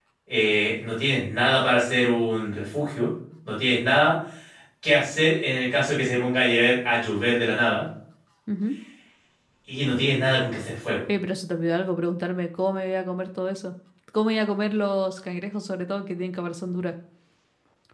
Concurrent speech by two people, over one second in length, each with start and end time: none

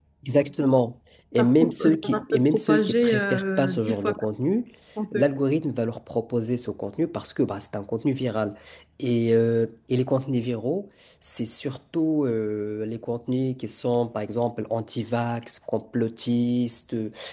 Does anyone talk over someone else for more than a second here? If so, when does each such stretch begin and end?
1.4-4.1

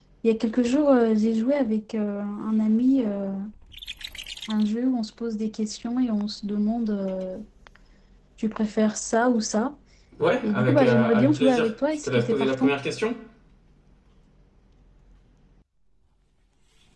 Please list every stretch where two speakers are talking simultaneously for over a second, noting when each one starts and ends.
10.4-12.7

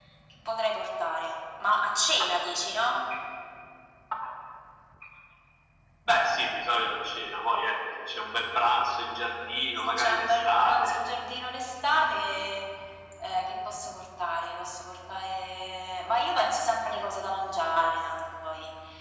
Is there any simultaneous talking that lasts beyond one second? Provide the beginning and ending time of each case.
9.8-11.0

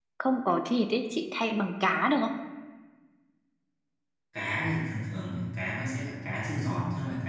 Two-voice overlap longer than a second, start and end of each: none

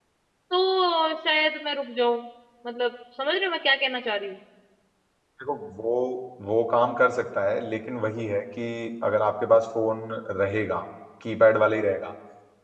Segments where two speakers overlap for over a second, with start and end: none

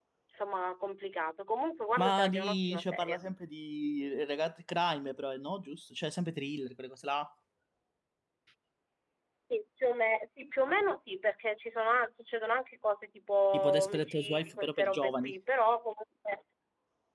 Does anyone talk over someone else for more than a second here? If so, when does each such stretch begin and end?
2.0-3.2, 13.5-15.3

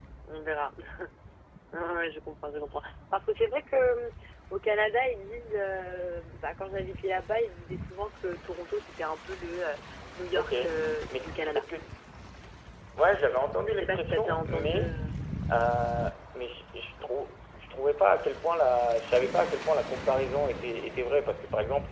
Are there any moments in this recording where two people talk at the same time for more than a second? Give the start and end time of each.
13.7-14.9

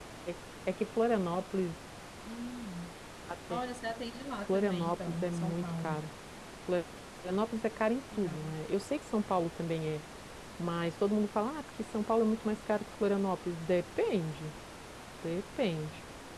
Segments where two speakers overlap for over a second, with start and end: 4.5-6.0

